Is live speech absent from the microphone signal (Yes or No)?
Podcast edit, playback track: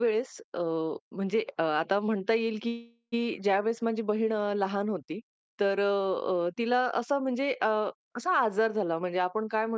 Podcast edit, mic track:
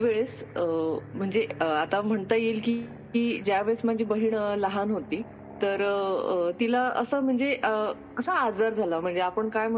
Yes